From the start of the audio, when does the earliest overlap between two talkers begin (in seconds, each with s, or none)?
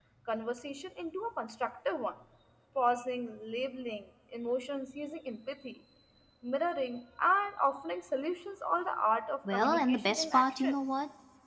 9.4 s